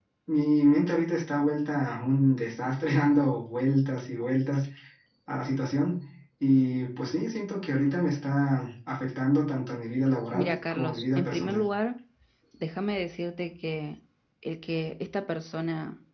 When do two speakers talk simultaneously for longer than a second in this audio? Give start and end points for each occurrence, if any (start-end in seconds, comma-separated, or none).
10.3-11.7